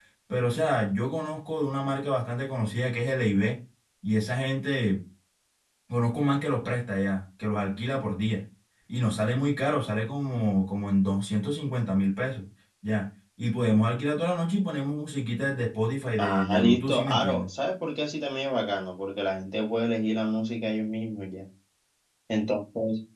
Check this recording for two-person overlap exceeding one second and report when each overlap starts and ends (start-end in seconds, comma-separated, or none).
16.2-17.5